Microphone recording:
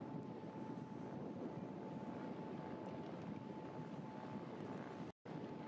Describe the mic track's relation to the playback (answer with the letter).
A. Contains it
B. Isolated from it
B